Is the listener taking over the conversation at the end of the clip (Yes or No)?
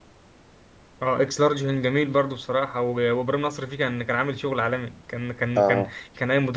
No